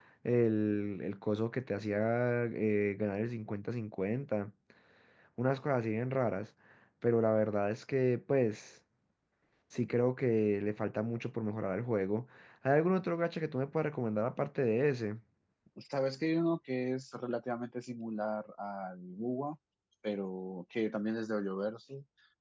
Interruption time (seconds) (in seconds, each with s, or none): none